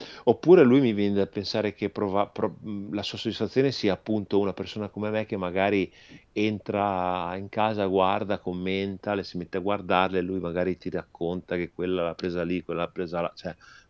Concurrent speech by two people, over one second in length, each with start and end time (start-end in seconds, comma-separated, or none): none